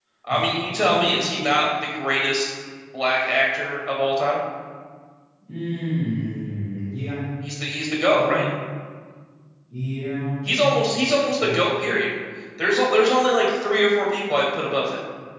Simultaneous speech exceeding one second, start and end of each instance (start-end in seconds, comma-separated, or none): none